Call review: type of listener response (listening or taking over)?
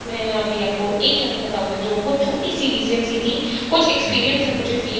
listening